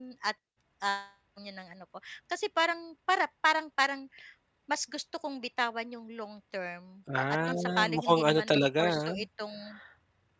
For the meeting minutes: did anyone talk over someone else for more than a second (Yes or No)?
Yes